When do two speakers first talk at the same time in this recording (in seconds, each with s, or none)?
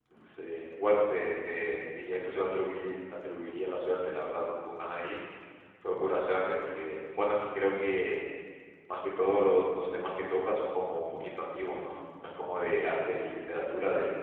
none